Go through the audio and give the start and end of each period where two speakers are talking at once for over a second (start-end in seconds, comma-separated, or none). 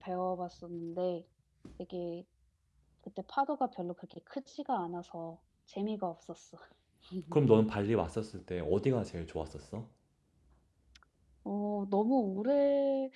none